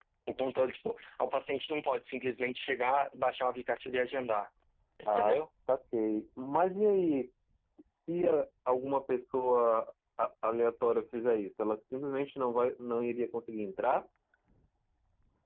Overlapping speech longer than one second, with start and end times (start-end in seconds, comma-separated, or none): none